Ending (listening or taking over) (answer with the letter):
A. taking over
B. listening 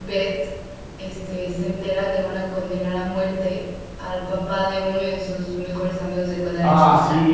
A